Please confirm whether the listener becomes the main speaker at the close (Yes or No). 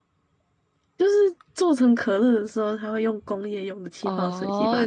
Yes